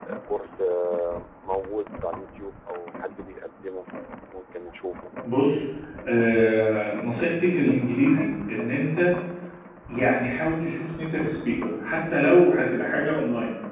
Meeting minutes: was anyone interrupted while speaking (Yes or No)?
No